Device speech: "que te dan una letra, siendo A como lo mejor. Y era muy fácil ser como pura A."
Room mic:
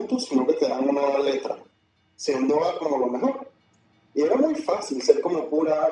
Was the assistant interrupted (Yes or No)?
No